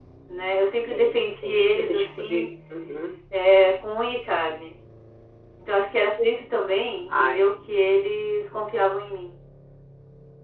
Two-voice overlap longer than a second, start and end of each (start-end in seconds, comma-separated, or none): 0.8-2.4